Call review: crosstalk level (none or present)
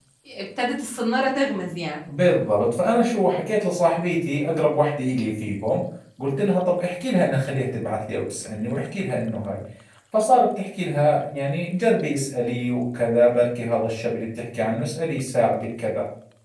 none